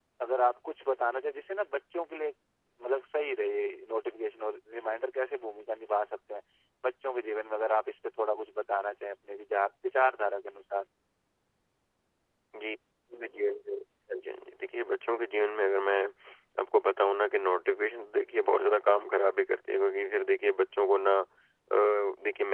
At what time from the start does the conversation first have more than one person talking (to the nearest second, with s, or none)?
none